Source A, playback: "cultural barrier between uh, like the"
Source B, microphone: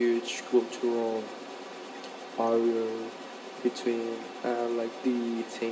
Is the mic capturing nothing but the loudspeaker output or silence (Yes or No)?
Yes